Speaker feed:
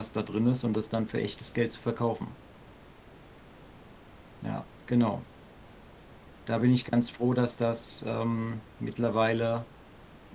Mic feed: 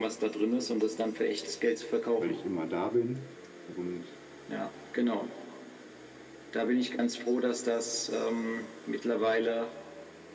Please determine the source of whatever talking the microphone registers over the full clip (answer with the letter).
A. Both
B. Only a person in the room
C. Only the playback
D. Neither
A